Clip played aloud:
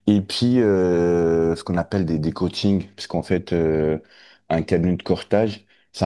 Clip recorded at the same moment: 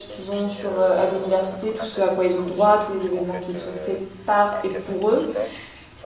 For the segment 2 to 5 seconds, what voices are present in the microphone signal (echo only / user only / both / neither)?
both